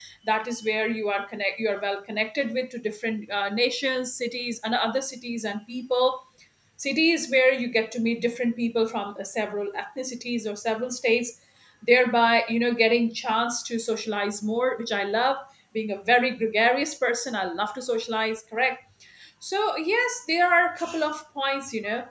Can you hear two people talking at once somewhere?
No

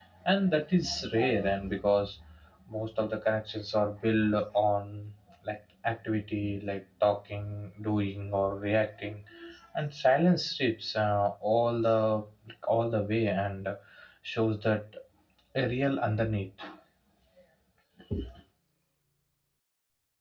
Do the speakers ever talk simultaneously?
No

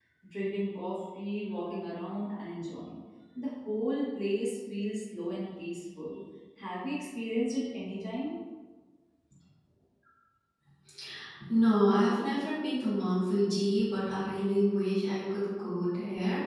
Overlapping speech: No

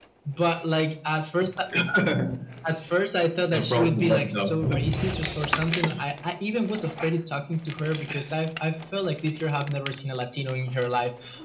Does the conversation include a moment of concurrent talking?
Yes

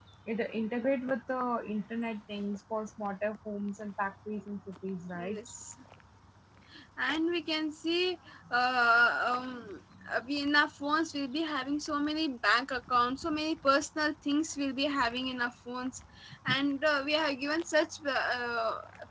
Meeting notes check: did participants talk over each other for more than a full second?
No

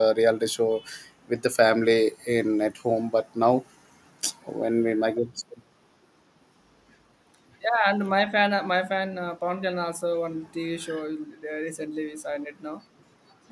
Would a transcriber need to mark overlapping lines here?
No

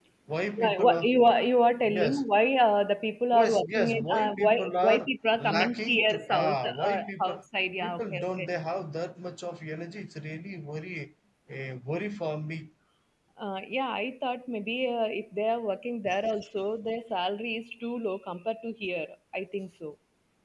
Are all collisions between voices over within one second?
No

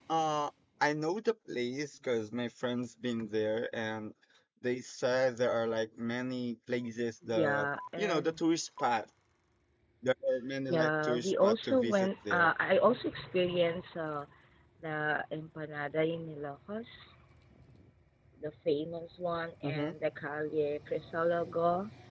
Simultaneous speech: Yes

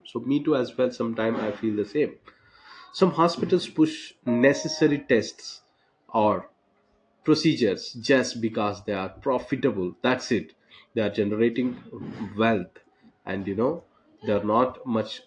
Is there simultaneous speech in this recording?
No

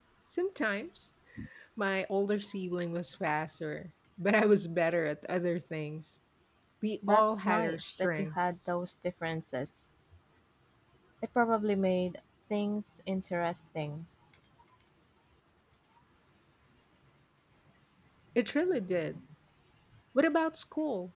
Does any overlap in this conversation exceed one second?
Yes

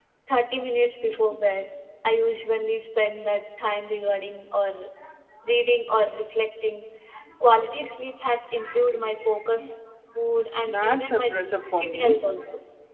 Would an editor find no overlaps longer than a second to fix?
No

